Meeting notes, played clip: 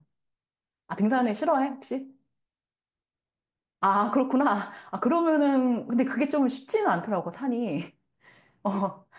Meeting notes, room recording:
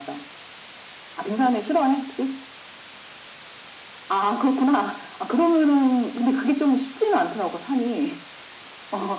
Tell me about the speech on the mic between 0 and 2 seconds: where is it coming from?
echo only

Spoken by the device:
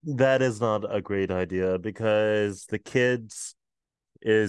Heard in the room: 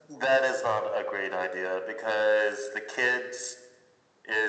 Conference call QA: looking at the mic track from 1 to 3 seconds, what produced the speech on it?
echo only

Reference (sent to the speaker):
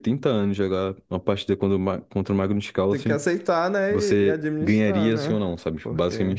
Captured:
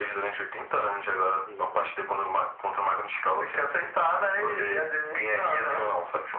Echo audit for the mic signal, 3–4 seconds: echo only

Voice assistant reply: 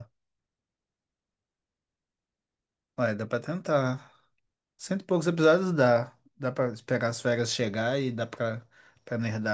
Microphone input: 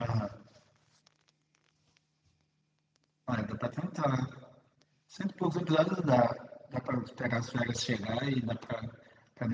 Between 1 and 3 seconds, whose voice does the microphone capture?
neither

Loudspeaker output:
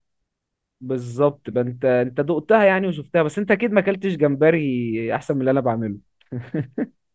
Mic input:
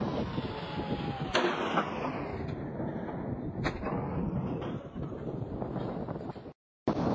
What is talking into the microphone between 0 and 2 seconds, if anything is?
neither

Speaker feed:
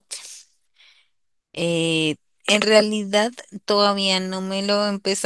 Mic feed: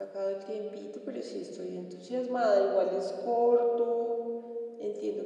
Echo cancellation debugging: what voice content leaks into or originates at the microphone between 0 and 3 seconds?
user only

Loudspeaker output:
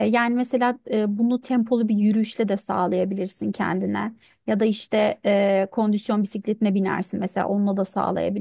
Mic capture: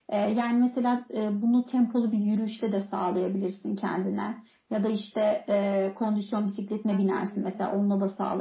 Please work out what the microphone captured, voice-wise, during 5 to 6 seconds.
echo only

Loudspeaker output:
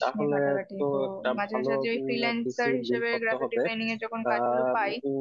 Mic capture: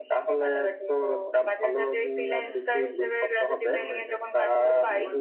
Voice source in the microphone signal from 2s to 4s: both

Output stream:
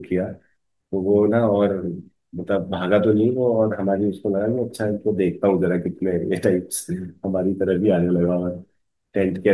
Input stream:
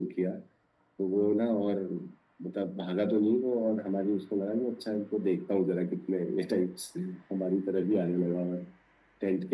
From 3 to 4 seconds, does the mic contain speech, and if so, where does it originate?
echo only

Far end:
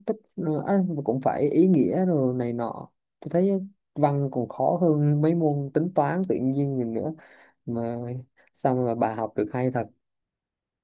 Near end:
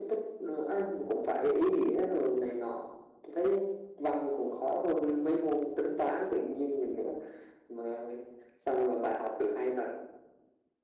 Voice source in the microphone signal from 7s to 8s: echo only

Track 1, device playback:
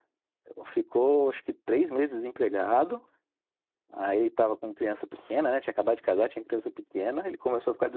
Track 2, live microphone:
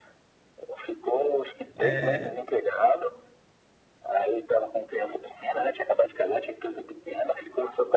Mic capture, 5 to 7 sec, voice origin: echo only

